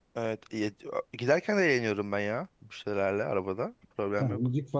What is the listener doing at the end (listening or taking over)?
taking over